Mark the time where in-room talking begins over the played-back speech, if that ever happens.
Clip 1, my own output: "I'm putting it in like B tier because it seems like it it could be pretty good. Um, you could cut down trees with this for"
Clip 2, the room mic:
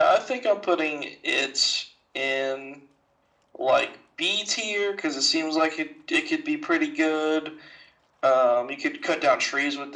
none

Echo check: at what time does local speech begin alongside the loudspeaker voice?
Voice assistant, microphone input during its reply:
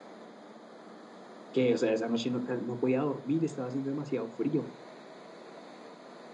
1.5 s

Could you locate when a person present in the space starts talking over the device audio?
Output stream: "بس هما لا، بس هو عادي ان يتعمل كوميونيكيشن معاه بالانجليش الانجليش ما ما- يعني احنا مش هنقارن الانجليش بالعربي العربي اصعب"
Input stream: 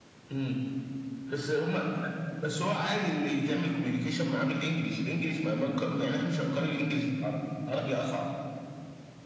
none

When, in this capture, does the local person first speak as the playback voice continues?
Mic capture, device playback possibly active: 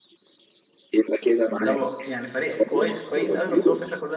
1.6 s

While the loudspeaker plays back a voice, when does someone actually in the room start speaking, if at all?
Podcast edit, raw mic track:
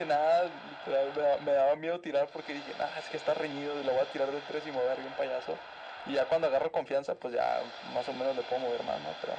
none

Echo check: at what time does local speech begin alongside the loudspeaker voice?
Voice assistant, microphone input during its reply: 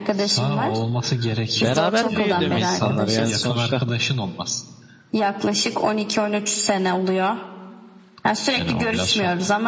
1.6 s

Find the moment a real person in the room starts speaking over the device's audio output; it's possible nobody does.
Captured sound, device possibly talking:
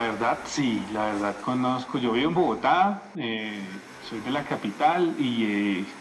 none

